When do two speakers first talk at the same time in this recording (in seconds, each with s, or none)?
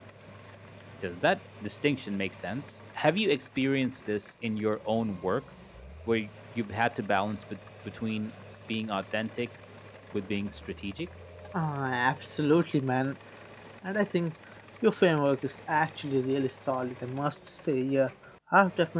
none